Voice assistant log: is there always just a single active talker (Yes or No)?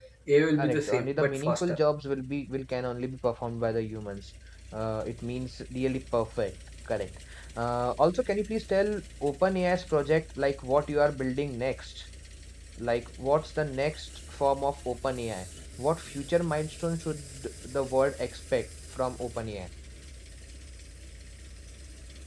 No